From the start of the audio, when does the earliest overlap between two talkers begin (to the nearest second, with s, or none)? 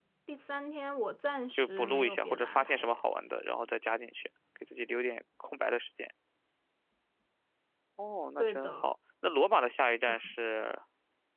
2 s